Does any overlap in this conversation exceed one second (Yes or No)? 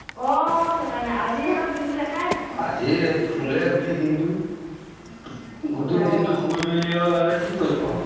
No